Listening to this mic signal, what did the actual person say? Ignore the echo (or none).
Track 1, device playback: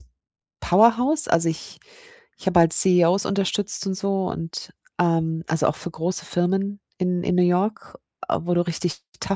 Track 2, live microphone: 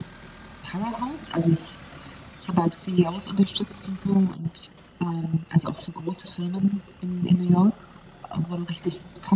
none